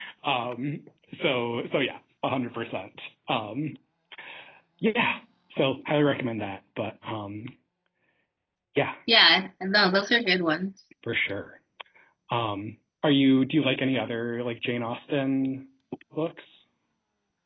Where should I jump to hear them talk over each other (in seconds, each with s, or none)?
none